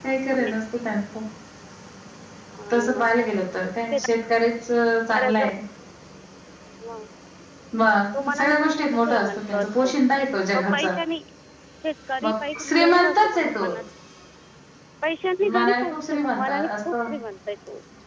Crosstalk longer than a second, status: present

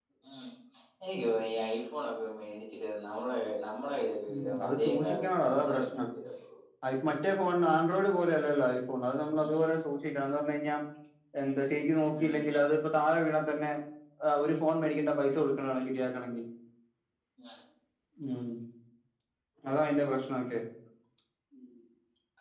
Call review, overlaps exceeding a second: present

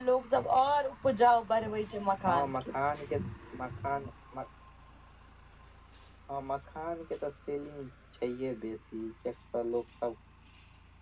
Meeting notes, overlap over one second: none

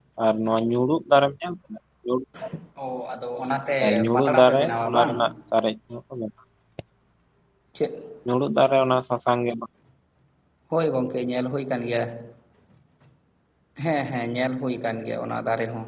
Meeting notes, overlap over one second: present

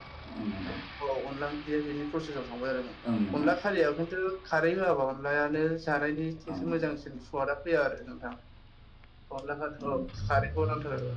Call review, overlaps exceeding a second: none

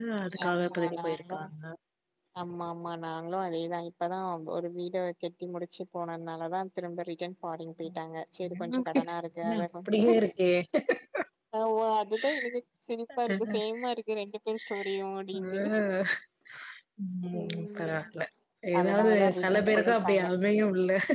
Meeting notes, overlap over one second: present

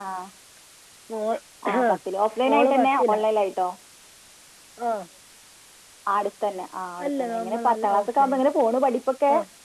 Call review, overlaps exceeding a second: present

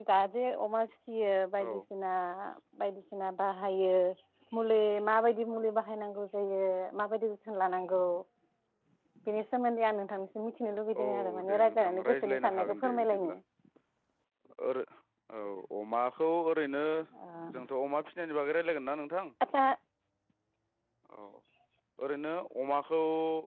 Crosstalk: present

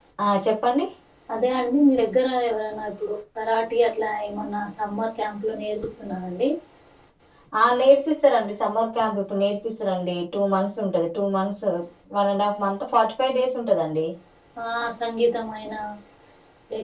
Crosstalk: none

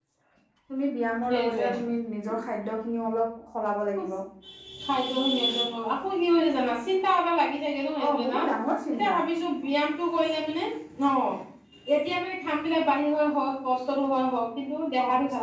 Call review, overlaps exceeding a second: none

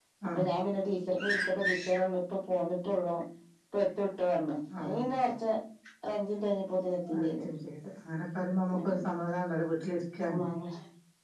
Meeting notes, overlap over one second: none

